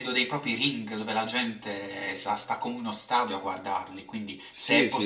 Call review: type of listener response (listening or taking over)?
listening